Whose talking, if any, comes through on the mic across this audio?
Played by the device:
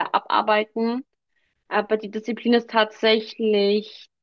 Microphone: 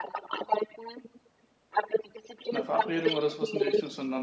both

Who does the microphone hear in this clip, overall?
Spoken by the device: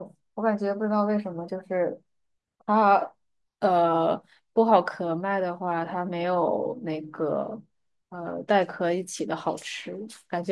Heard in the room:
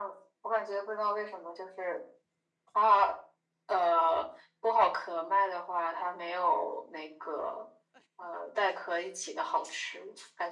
echo only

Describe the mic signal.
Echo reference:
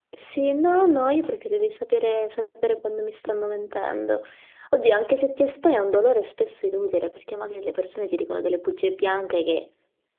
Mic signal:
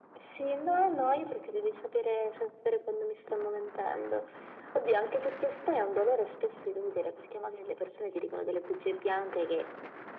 echo only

